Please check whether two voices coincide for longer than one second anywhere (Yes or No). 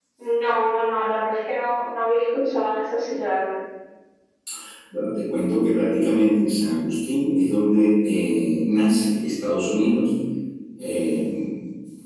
No